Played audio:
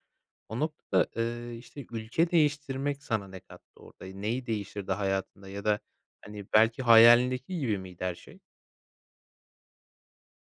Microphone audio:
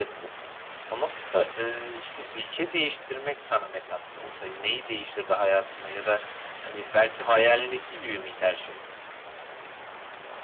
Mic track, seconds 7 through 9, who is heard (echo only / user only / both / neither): echo only